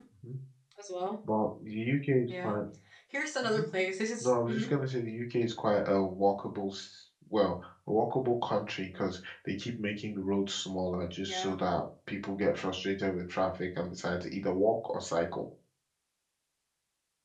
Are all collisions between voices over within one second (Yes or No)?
Yes